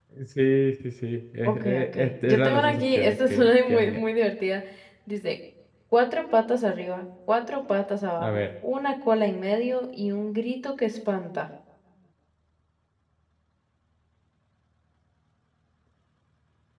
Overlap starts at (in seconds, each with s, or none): 1.4 s